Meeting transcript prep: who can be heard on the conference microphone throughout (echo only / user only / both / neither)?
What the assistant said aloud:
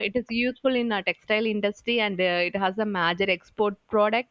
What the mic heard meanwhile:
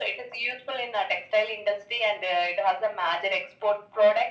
echo only